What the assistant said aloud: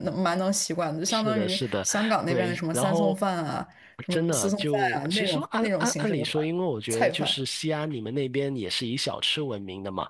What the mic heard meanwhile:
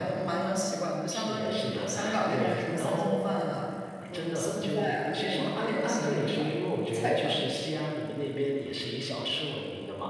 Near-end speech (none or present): none